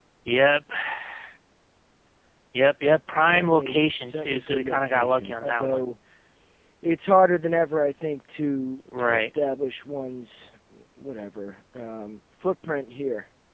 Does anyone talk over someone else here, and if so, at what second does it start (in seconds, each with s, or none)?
3.1 s